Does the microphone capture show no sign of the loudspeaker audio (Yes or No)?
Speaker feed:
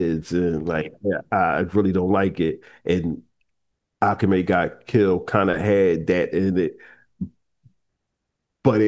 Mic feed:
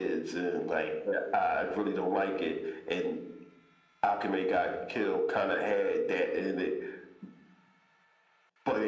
No